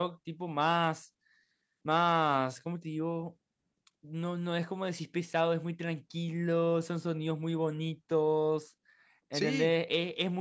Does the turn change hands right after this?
No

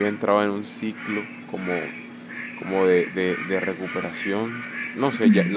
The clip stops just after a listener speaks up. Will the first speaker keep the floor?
Yes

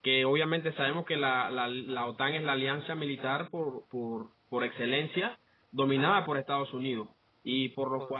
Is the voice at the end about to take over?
No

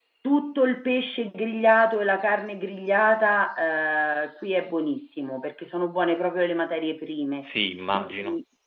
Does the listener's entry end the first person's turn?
No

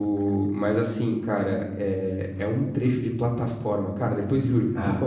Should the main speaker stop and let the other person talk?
No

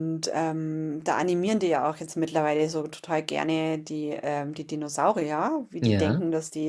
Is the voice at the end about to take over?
No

